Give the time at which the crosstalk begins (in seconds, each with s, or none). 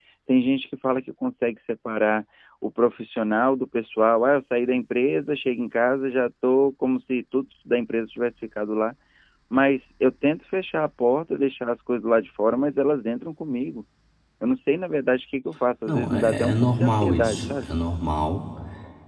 15.9 s